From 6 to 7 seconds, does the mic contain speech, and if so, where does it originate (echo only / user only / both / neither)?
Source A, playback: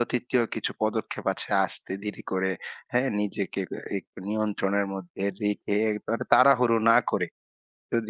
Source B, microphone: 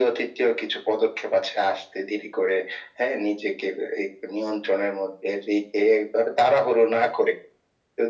echo only